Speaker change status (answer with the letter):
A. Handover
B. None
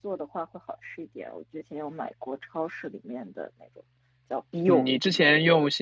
A